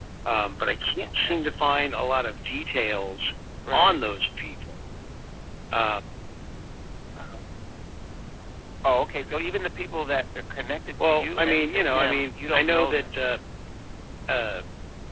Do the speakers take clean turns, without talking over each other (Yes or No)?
No